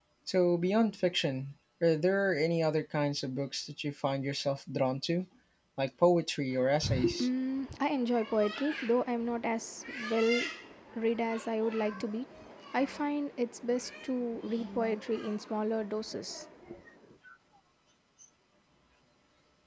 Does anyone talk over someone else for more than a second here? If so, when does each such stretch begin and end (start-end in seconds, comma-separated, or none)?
none